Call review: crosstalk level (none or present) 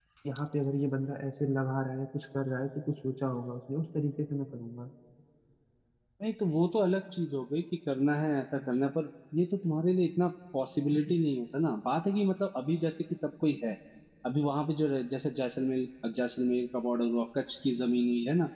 none